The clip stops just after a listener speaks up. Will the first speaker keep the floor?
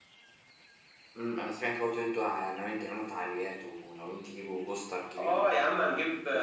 No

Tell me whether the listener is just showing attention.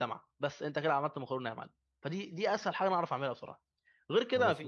Yes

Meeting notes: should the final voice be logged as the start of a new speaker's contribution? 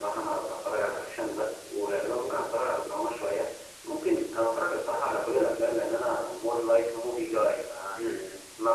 No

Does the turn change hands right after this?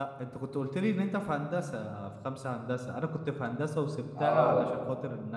No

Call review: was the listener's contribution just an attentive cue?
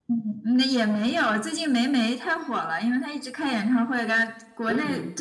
Yes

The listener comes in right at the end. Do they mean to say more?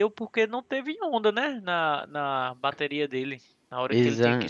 No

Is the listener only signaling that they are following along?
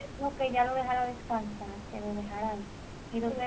No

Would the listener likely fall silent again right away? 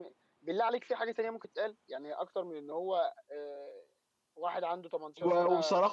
No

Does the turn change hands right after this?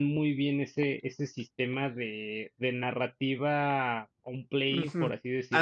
Yes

